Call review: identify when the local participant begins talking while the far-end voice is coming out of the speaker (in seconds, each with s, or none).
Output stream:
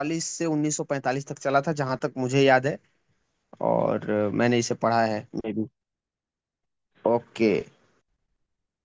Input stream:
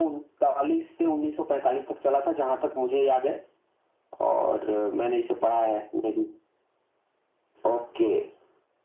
none